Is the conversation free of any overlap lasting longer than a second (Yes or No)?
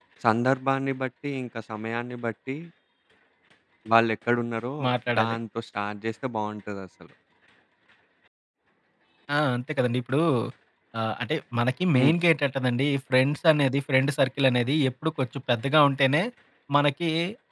Yes